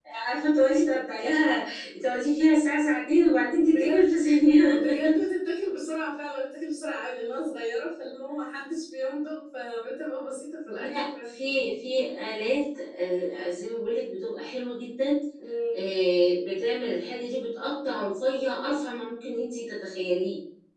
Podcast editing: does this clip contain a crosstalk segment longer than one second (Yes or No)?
No